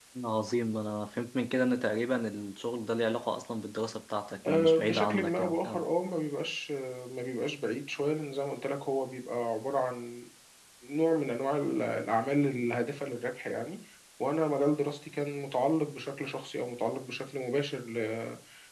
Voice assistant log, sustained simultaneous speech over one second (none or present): present